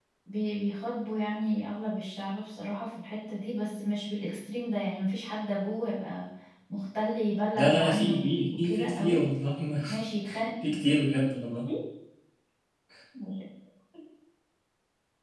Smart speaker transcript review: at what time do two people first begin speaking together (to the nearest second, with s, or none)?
8 s